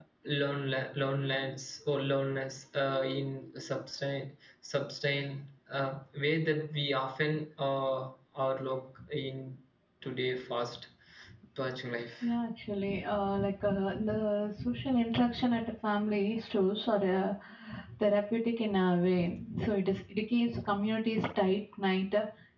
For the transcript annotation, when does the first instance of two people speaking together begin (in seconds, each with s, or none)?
none